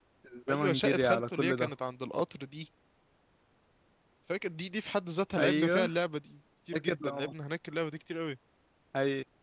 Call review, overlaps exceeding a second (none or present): present